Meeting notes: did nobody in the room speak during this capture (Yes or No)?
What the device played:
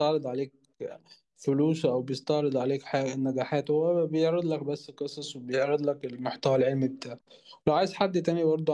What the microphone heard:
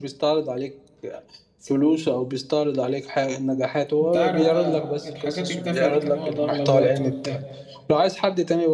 No